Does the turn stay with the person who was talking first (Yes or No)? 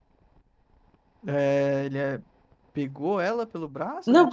No